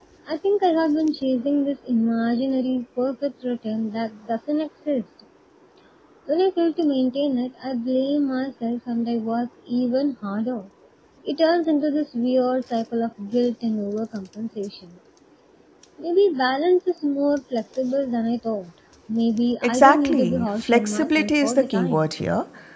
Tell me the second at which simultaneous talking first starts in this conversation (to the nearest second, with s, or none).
20 s